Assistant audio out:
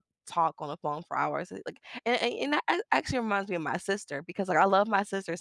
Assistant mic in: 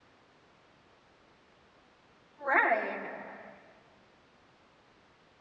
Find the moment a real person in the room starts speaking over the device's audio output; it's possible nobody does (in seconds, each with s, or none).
2.4 s